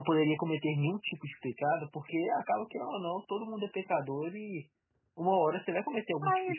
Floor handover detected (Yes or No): Yes